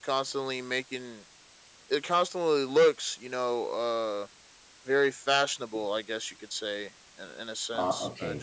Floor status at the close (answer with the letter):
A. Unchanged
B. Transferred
A